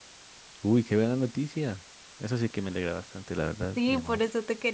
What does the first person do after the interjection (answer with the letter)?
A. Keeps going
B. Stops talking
B